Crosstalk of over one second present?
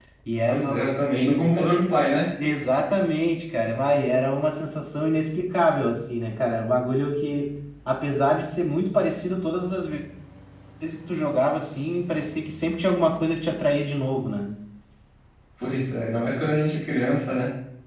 No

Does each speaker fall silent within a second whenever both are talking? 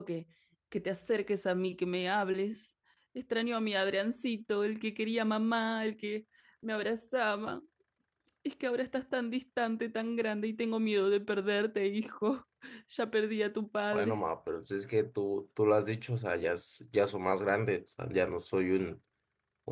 Yes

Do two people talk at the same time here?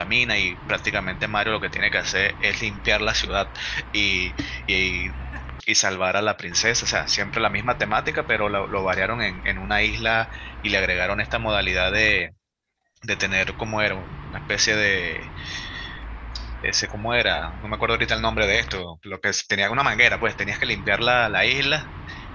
No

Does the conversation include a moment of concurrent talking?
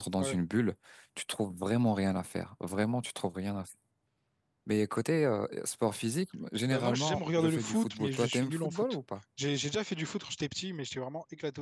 Yes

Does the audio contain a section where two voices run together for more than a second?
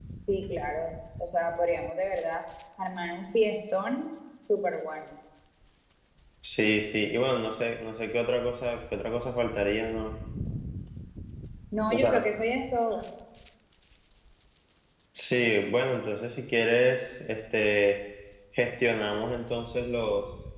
No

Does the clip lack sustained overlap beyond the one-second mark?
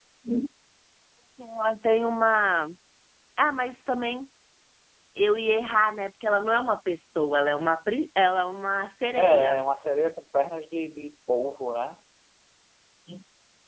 Yes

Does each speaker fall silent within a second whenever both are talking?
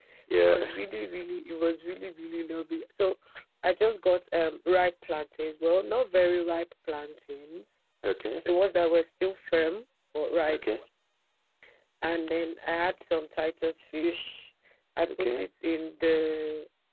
Yes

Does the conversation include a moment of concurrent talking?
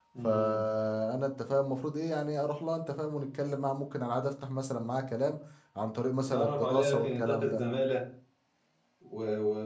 Yes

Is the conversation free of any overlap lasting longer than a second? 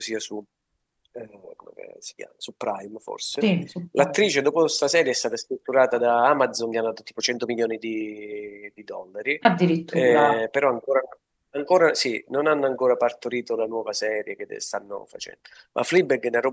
Yes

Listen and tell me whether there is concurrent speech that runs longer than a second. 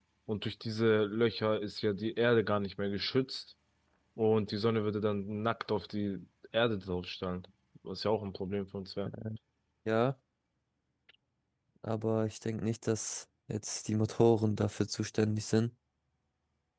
No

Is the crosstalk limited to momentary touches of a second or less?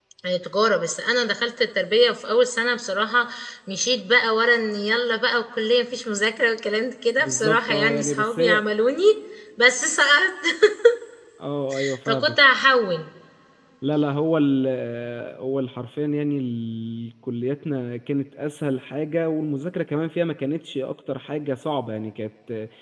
No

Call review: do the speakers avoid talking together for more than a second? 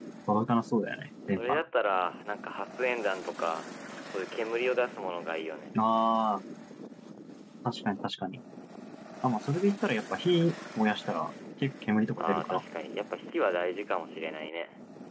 Yes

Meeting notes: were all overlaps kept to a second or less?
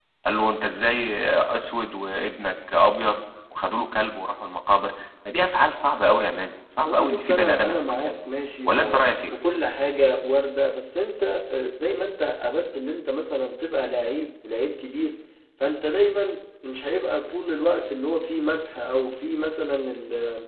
No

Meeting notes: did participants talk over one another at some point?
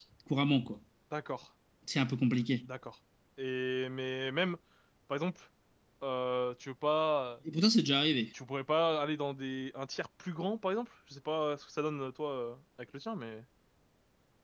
No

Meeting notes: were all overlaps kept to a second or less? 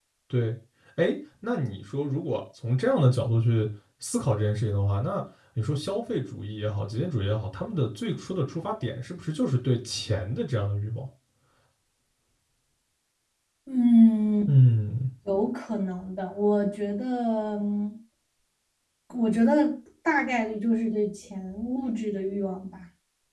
Yes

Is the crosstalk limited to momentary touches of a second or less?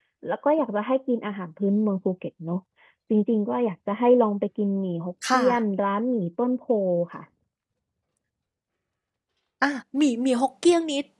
Yes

